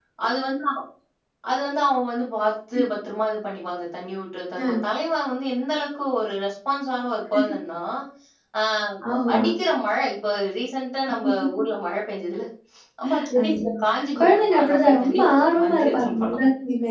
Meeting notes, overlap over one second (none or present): present